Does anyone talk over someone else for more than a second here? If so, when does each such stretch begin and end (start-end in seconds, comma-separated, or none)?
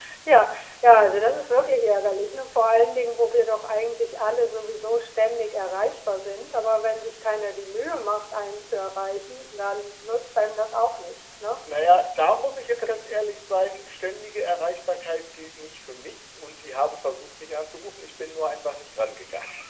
none